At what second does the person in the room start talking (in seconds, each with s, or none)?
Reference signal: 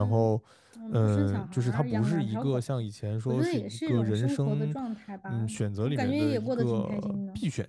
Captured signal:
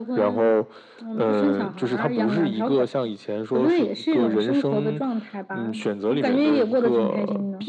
none